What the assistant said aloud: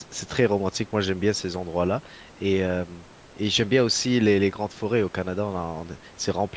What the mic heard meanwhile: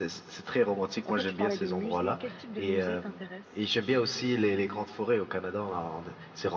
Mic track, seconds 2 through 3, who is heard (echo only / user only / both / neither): both